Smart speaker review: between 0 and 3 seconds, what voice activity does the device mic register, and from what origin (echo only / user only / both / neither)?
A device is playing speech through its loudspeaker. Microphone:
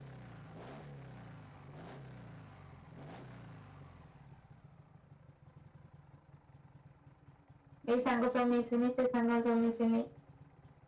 neither